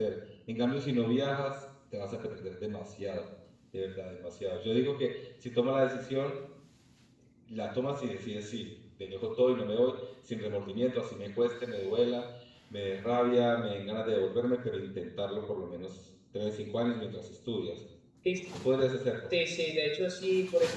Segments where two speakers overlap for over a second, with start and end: none

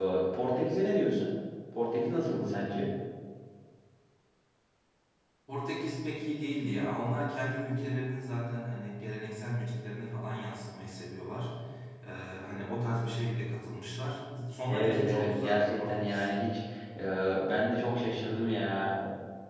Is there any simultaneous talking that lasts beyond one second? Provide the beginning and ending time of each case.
14.7-16.2

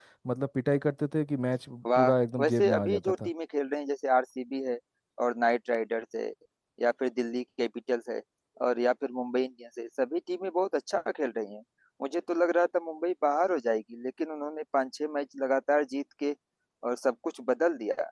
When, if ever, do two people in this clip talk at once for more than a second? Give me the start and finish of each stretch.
2.0-3.3

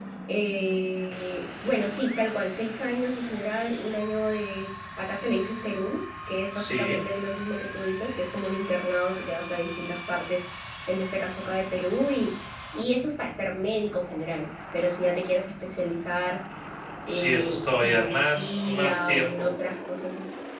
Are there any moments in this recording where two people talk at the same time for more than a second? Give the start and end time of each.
17.1-19.5

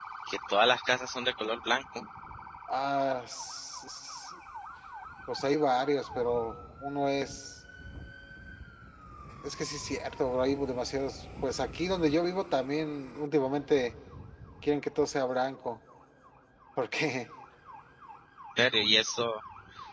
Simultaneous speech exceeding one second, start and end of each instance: none

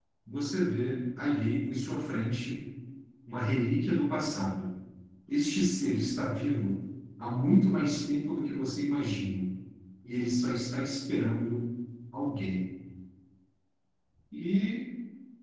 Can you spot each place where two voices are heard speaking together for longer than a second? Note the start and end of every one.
none

